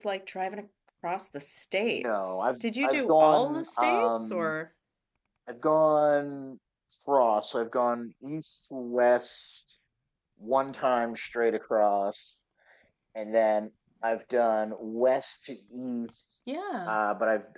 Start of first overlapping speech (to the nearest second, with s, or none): 2 s